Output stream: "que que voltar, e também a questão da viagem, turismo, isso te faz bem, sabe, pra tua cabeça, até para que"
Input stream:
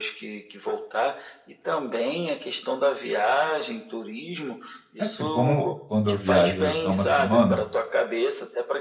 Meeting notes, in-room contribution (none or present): present